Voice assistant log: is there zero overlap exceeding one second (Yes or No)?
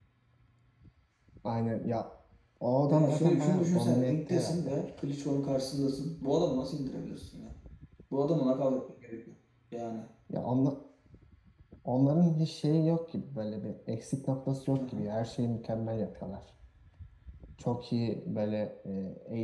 No